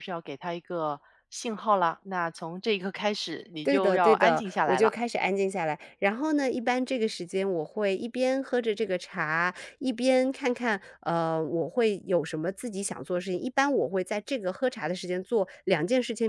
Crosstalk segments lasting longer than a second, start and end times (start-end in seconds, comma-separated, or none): 3.6-4.9